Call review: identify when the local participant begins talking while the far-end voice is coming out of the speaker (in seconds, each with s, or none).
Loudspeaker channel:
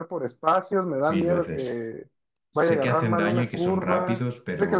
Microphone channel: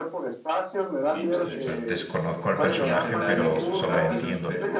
1.3 s